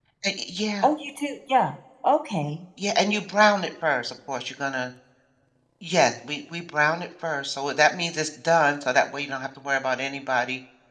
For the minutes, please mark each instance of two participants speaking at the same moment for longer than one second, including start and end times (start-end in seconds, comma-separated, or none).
none